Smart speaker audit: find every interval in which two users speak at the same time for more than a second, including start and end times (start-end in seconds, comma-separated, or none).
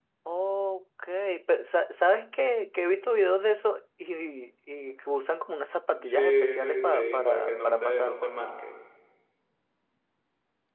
6.0-8.3